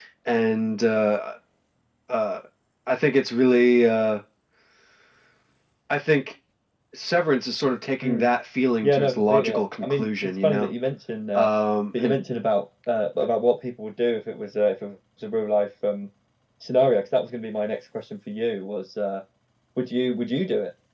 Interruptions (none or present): present